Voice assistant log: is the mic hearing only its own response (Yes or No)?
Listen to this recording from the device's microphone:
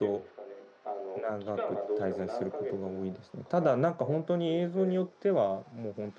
No